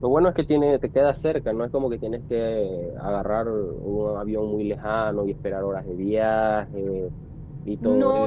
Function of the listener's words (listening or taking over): taking over